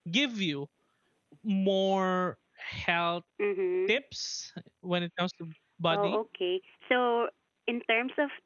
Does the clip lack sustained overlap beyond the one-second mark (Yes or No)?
Yes